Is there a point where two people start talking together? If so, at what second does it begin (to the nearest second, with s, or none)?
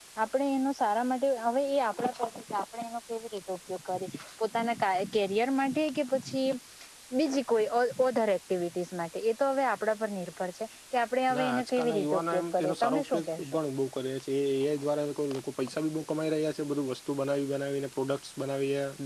11 s